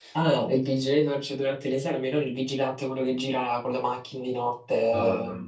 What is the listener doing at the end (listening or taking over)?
listening